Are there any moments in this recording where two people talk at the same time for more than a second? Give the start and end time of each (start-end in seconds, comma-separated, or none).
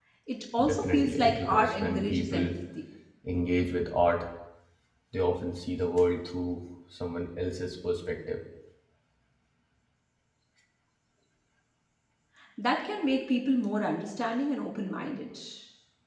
0.6-2.5